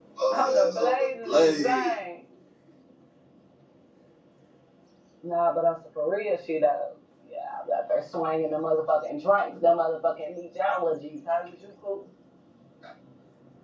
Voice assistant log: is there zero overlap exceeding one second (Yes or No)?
No